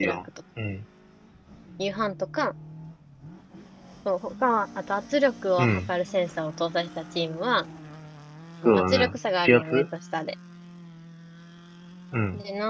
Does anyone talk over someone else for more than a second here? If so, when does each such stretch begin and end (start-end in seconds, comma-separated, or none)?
8.6-9.8